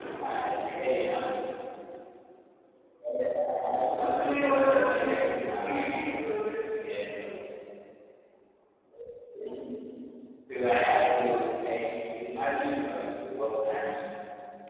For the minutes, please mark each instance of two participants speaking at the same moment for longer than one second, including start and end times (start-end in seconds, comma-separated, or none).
4.1-6.0